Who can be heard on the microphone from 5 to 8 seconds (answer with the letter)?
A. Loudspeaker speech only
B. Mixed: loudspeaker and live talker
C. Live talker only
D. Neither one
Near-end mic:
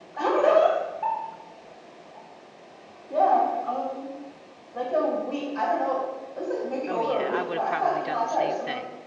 B